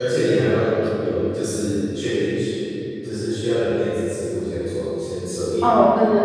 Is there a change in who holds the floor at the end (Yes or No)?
Yes